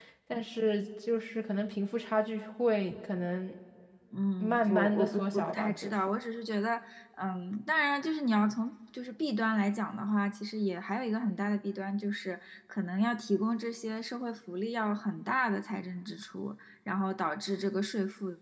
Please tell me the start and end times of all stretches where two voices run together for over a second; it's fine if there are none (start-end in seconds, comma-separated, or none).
4.4-5.9